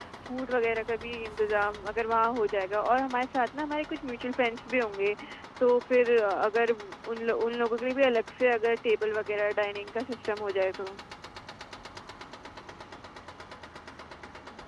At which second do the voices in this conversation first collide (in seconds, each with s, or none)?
none